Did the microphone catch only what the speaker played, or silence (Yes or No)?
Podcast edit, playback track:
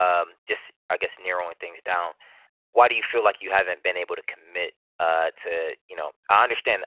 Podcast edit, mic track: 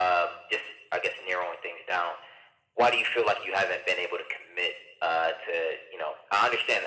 Yes